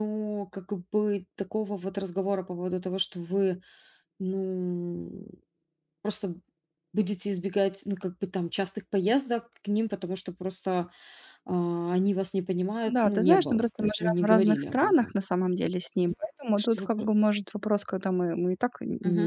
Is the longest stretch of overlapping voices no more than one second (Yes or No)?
No